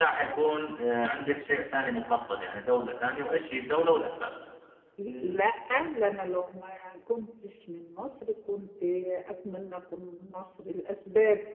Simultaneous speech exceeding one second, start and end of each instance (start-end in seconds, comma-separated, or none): none